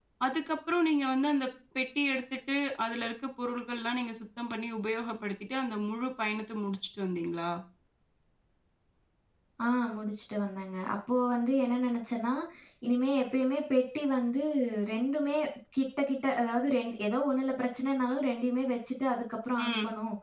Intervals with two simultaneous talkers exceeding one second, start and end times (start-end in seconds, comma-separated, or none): none